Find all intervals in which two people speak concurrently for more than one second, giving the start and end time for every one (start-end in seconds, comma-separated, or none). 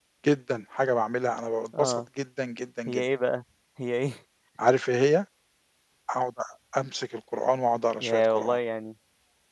none